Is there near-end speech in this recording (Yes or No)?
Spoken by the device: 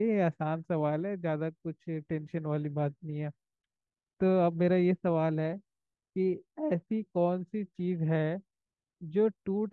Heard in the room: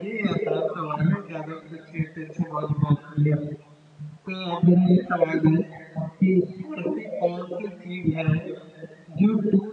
No